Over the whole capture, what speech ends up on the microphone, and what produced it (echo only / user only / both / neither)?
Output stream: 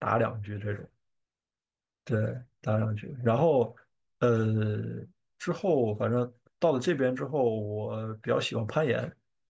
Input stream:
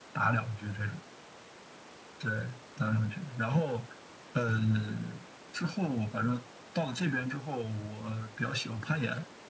echo only